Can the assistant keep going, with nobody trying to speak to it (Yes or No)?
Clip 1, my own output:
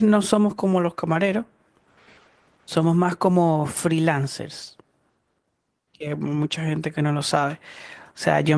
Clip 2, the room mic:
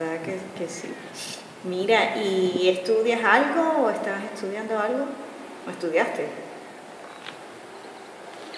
No